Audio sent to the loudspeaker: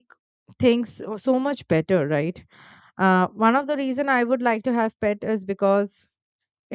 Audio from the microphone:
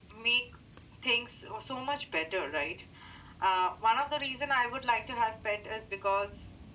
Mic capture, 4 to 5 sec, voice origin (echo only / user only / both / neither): echo only